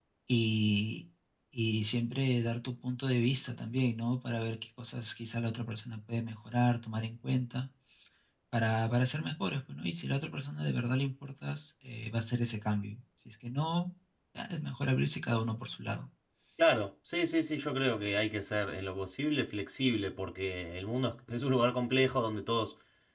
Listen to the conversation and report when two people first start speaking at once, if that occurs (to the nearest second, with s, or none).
none